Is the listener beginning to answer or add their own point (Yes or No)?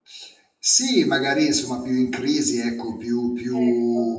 No